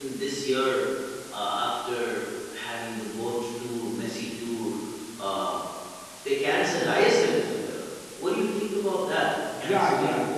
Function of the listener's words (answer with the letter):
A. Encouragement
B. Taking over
B